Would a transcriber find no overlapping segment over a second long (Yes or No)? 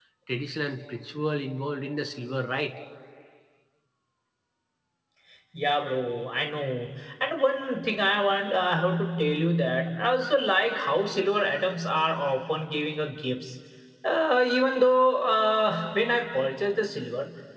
Yes